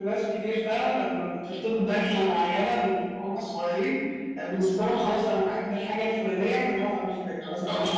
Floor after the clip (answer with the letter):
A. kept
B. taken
B